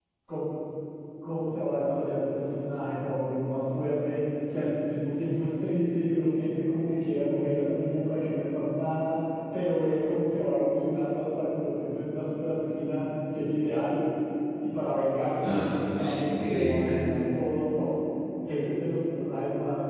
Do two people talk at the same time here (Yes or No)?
Yes